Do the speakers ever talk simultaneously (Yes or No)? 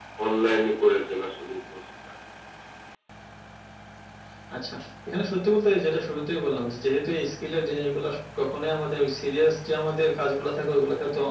No